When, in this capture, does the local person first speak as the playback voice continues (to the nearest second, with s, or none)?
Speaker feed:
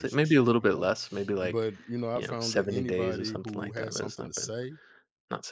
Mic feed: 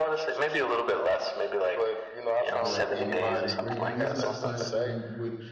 2 s